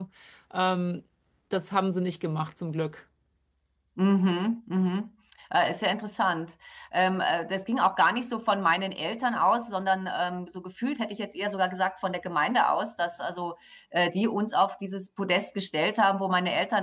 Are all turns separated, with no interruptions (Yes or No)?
Yes